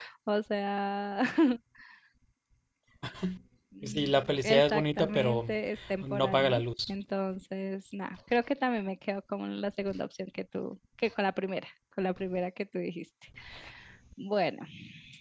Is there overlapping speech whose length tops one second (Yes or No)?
Yes